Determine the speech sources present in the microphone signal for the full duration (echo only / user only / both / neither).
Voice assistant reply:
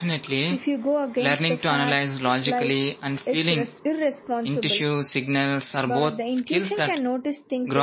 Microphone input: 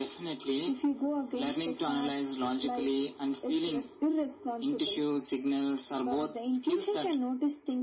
echo only